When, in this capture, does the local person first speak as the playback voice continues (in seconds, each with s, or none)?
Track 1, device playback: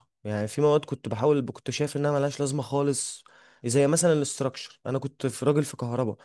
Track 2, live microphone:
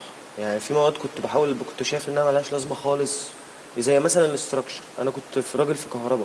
none